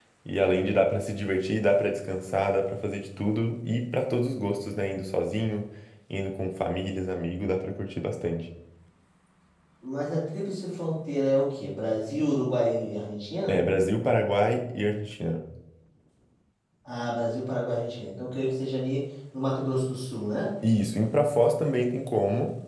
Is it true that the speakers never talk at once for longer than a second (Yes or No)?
Yes